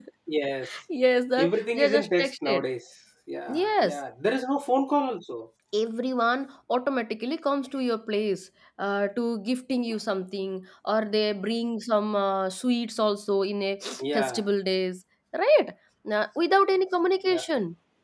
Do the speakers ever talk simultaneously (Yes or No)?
Yes